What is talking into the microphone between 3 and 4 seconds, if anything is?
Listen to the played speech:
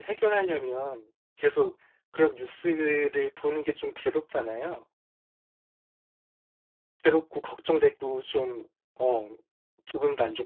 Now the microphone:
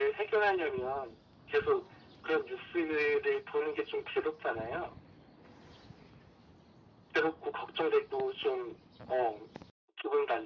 echo only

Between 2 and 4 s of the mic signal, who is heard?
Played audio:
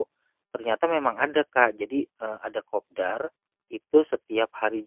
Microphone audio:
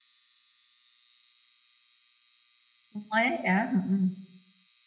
user only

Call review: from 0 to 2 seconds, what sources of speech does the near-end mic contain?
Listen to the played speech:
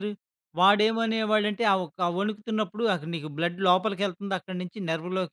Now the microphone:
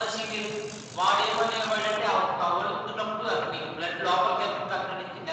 echo only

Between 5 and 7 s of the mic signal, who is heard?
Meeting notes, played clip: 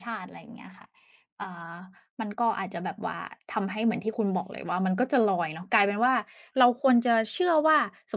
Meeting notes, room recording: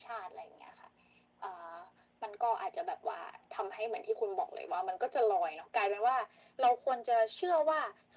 echo only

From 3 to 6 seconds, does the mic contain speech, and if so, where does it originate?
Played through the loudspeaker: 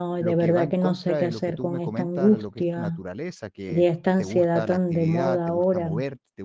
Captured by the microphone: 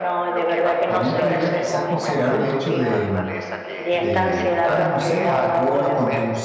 both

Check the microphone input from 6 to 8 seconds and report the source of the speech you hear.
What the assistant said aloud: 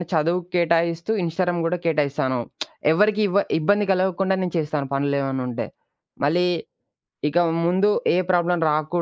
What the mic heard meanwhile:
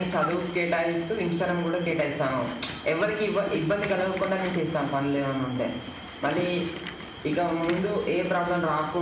echo only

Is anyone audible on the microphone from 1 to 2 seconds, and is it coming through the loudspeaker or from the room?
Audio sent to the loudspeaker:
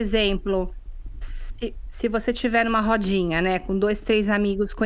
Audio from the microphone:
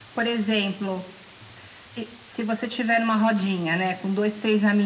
echo only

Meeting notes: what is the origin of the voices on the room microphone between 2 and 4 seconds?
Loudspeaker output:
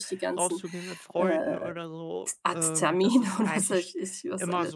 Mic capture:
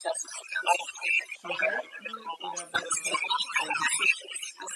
both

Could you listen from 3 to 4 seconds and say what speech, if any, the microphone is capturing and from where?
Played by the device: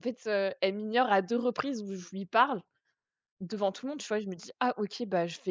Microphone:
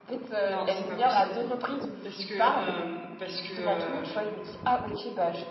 both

